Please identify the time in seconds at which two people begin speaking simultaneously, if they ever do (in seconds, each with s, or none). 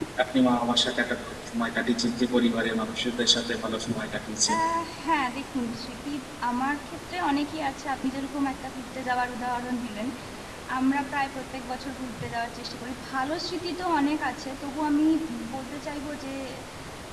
none